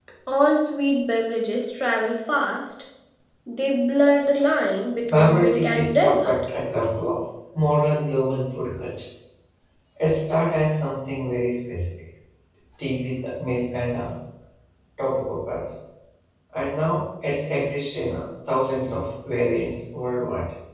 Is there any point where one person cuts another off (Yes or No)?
Yes